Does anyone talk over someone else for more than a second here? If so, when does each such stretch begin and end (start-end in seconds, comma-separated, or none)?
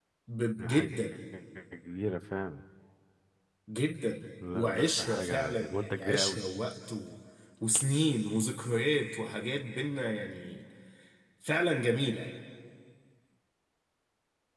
4.5-6.4